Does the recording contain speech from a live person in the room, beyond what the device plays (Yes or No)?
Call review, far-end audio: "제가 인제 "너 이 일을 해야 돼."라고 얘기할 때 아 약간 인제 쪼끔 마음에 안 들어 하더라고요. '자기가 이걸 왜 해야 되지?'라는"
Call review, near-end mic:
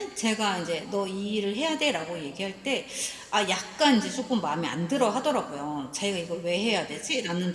No